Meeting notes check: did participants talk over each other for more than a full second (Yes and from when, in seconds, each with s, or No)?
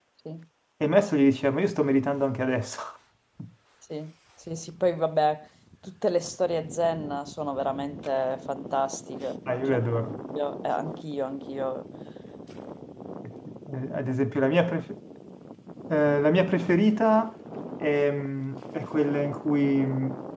No